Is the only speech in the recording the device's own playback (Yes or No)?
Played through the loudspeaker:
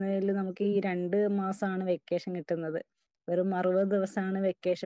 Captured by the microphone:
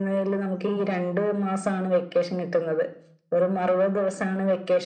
Yes